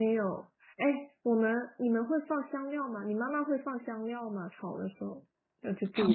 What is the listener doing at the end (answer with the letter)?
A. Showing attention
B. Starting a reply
B